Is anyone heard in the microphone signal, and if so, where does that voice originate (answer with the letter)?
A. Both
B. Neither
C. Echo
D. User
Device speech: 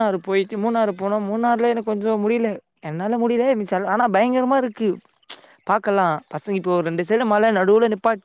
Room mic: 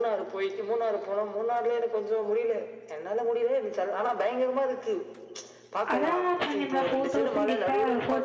A